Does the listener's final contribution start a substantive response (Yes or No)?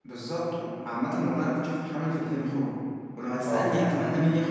No